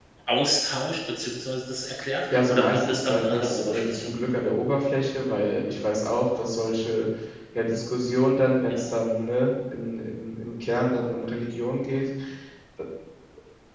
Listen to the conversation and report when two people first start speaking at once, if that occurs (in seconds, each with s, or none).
2.3 s